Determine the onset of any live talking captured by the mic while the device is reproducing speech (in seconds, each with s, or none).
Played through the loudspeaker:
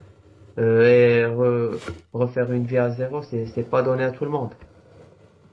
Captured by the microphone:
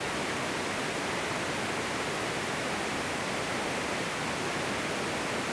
none